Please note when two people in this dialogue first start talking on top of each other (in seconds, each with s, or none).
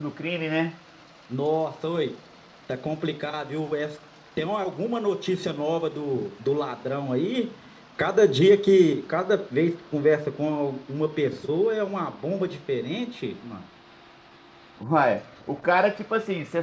none